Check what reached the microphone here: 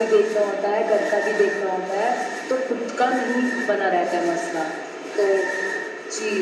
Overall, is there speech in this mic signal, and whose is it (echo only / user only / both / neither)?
echo only